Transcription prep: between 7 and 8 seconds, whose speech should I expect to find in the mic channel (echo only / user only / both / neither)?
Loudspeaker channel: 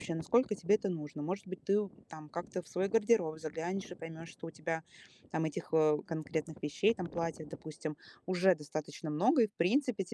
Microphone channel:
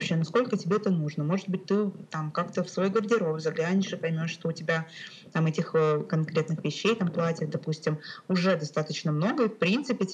echo only